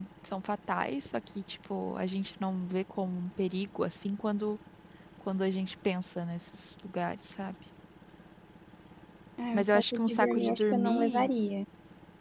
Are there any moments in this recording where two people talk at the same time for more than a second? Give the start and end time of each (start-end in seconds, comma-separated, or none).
9.5-11.3